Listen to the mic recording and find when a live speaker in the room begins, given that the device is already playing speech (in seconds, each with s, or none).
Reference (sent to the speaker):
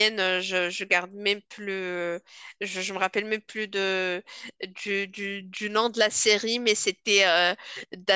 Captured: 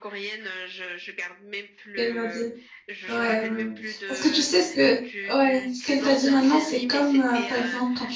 2.0 s